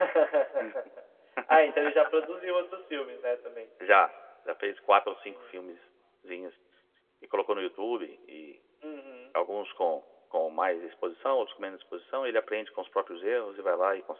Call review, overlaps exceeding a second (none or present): none